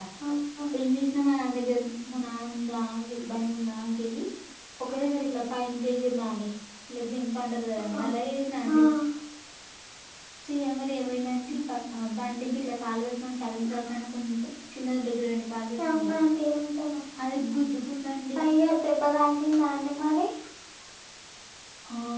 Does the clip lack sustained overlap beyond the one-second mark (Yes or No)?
Yes